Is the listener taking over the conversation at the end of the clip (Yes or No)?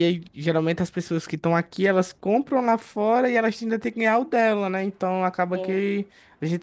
No